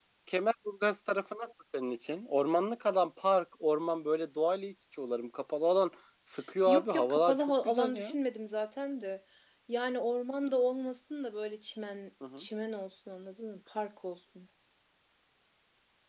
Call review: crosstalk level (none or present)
present